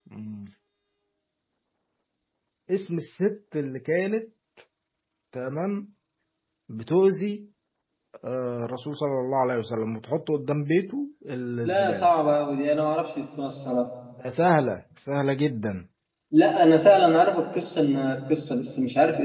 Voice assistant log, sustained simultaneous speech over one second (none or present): none